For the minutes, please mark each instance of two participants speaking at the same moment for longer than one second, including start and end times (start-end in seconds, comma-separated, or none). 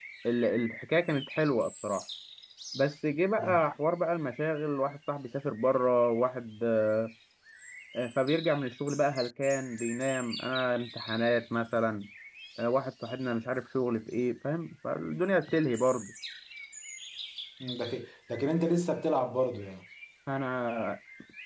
none